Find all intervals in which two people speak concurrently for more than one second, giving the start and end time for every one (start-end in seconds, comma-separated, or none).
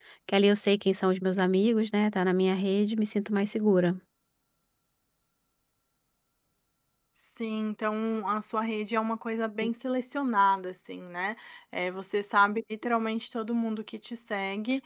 none